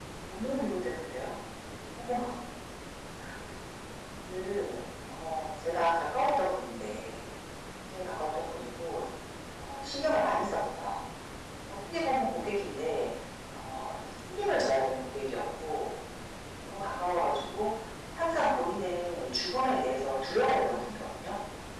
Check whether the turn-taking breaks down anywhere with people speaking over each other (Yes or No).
No